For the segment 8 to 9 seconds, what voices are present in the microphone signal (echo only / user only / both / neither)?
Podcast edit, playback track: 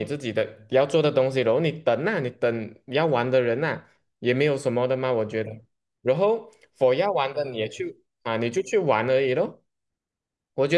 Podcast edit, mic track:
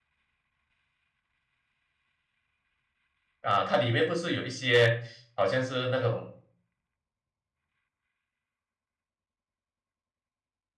neither